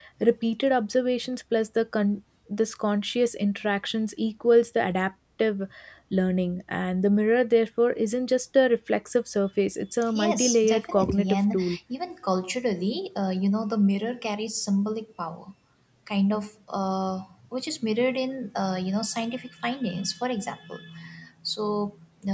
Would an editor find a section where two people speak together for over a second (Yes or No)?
Yes